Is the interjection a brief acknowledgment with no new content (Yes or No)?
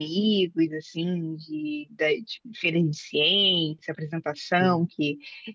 Yes